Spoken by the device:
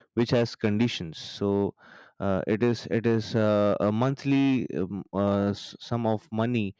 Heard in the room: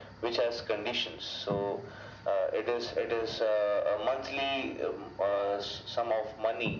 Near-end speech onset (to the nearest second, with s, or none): none